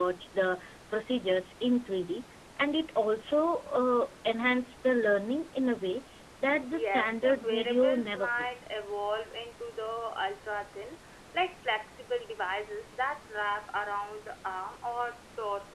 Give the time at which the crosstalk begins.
6.7 s

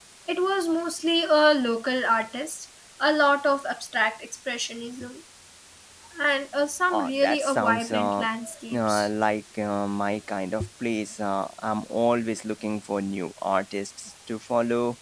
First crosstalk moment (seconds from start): 6.9 s

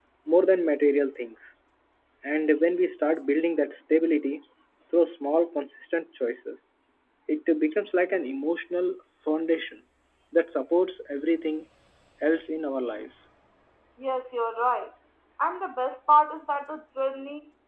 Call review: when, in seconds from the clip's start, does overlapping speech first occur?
none

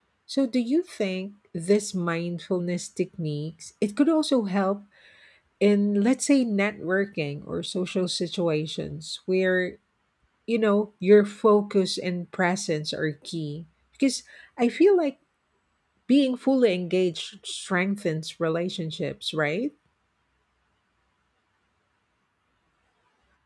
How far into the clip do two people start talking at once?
none

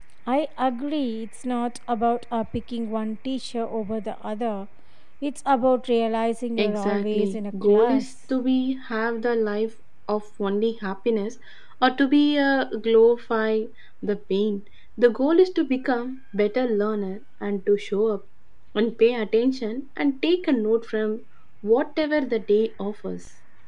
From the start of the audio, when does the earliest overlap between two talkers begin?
6.6 s

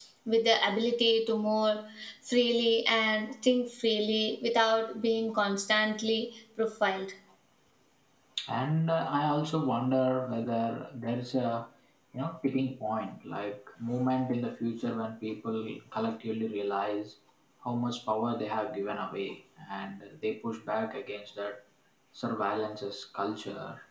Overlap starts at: none

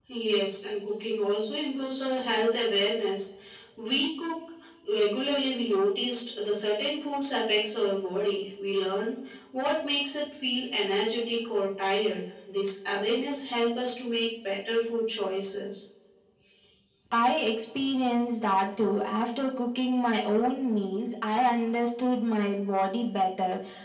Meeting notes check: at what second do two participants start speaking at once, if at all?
none

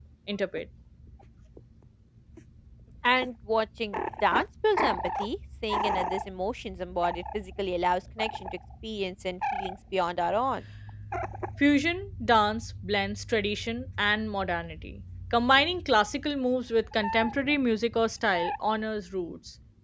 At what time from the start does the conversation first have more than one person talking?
none

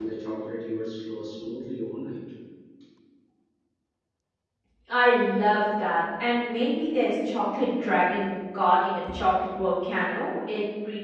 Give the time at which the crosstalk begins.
none

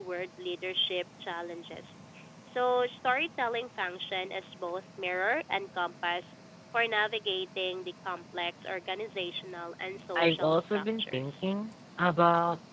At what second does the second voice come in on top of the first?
10.2 s

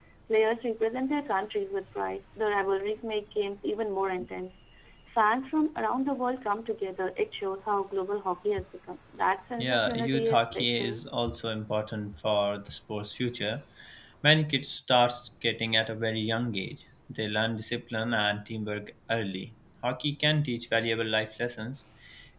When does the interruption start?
9.6 s

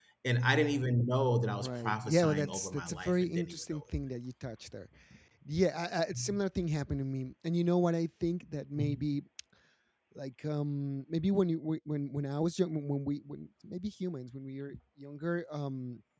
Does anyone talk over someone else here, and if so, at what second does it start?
1.6 s

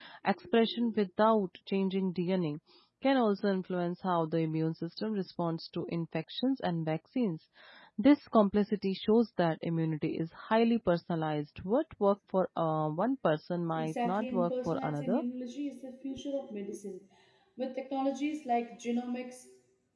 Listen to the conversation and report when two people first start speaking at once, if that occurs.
13.7 s

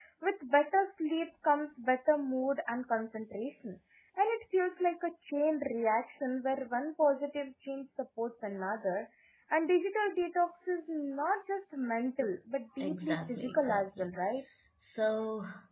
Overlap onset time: 12.8 s

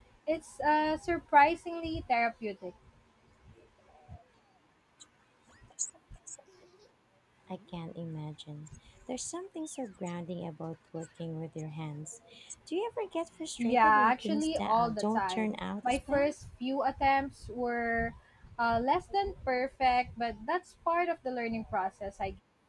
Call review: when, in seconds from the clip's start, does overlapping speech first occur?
13.6 s

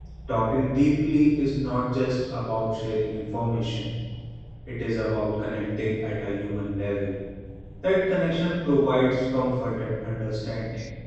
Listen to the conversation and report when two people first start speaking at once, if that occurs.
none

